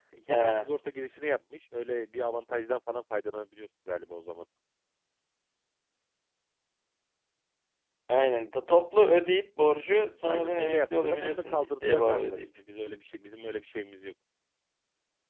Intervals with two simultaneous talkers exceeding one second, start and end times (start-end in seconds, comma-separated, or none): 10.2-12.5